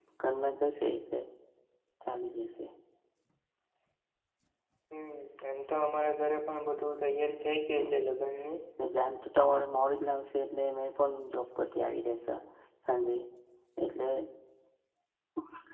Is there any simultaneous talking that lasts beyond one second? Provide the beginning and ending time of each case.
none

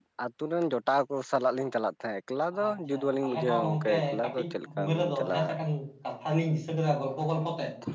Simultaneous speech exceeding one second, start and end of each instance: 2.6-5.4

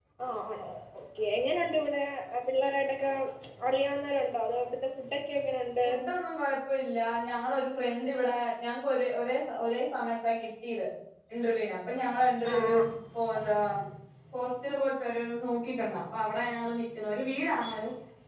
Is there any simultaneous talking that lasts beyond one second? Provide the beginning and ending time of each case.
none

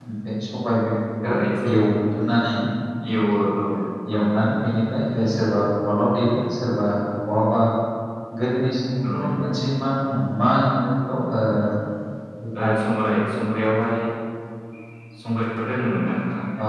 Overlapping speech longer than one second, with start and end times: none

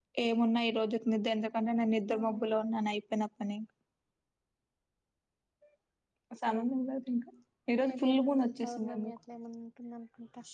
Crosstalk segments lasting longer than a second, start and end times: 7.8-9.2

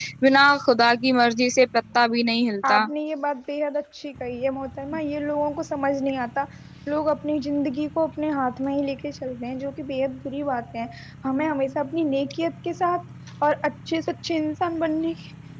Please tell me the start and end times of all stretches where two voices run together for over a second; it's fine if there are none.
none

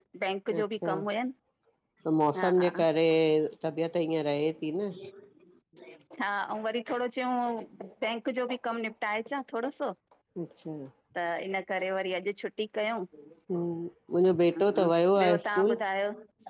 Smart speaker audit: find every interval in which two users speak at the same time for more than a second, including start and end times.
14.5-15.7

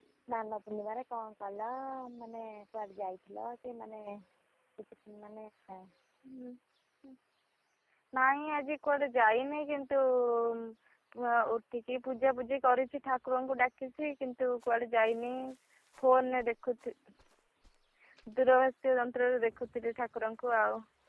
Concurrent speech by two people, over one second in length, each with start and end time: none

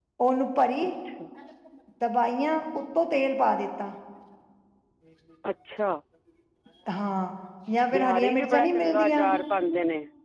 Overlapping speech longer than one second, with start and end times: 7.9-9.3

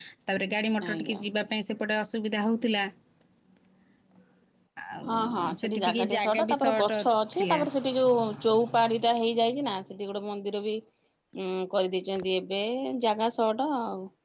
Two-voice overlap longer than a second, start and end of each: 5.1-7.0

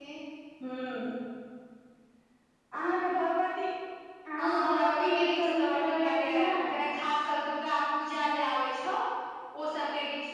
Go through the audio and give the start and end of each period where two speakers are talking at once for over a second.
4.4-6.8

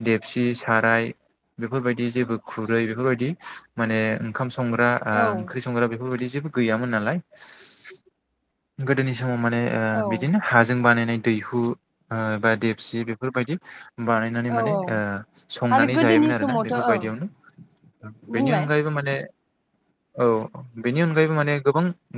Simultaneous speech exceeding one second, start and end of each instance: 15.7-17.0

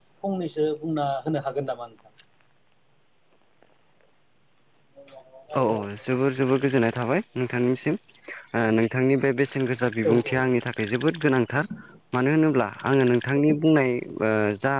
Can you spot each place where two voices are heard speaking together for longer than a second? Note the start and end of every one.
none

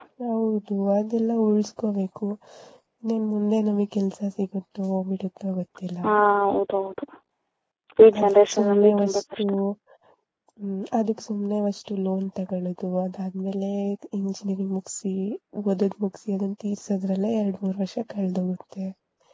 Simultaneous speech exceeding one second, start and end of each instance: 8.2-9.4

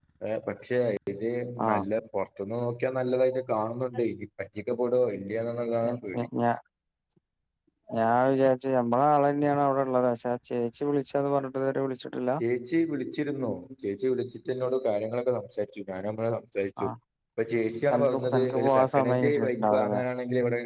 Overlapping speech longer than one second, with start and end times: 17.9-20.0

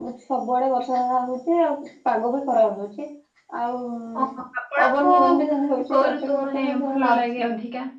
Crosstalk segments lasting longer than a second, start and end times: 5.9-7.2

